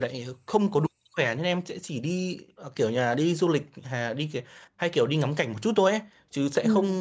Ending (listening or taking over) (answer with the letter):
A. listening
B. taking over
A